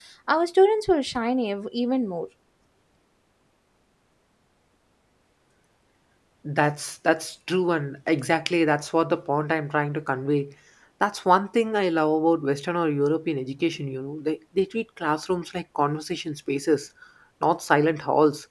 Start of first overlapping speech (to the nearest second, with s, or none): none